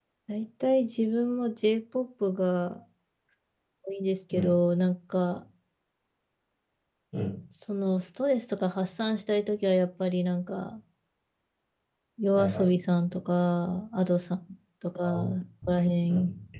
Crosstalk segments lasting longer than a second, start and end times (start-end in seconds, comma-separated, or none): none